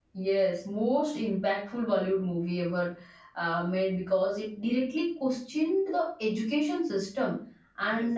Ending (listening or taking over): listening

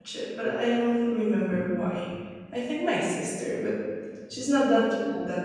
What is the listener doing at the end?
listening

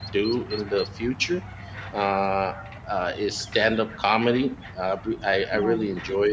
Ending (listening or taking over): listening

